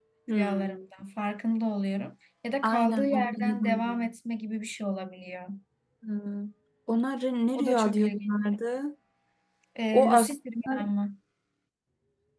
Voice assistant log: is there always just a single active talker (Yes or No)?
No